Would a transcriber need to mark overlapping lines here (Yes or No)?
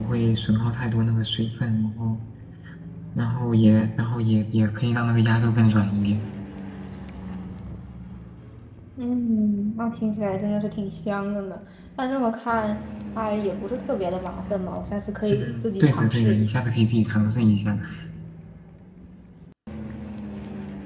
Yes